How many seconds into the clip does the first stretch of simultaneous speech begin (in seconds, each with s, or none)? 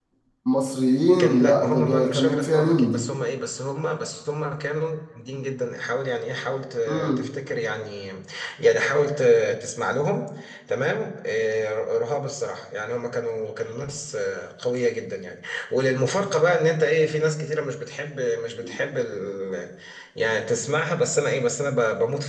1.2 s